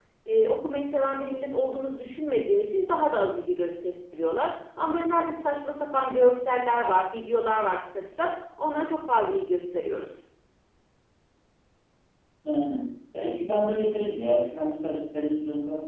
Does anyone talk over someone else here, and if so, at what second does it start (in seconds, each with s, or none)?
none